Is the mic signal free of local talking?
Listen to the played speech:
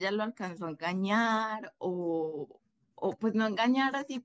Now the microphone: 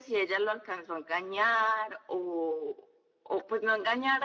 Yes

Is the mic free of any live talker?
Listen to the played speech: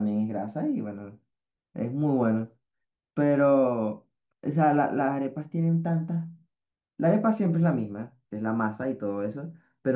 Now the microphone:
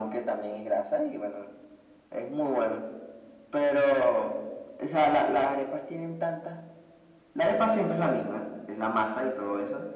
Yes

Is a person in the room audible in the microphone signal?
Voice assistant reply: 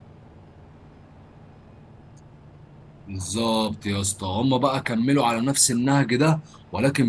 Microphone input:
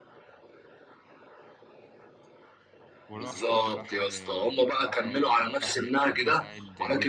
Yes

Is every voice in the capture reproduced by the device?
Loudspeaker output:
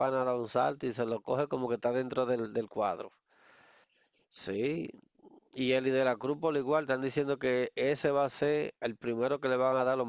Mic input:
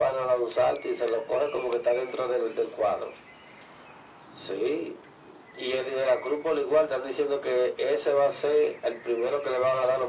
Yes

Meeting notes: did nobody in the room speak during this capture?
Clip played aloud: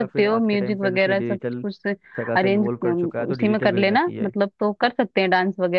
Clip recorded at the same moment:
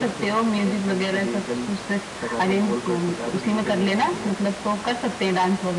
Yes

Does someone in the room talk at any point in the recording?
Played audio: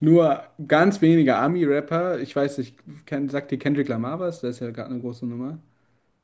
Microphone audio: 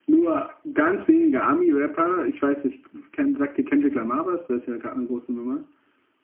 No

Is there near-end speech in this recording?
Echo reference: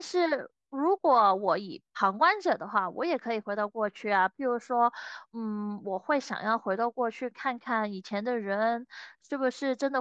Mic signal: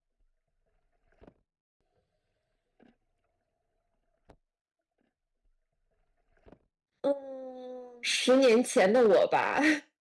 Yes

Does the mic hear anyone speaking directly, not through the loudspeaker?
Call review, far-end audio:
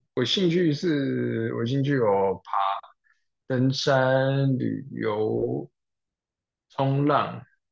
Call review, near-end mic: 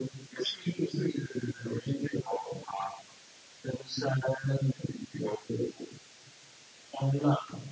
No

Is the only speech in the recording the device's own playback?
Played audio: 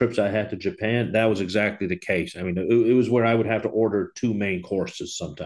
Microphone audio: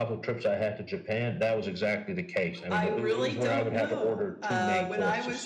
No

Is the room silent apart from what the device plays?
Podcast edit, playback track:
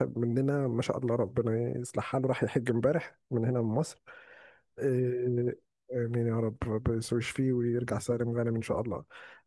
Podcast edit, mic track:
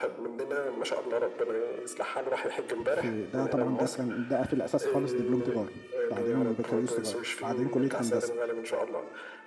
No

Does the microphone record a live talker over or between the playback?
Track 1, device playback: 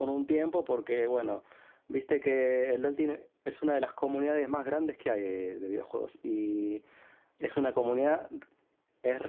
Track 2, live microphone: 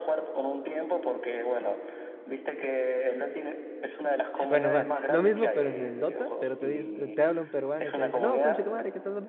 Yes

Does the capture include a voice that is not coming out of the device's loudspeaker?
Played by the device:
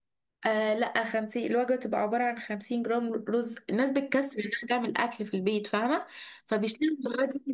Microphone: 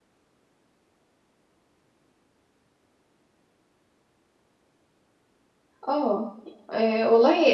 Yes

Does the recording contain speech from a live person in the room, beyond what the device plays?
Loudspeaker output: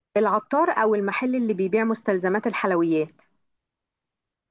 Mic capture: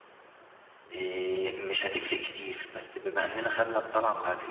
Yes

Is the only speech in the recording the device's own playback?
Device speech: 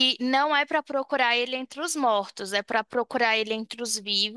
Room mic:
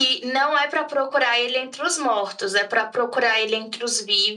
Yes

